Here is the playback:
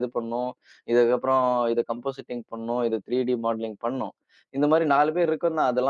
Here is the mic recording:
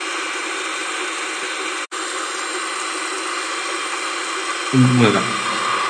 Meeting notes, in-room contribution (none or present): present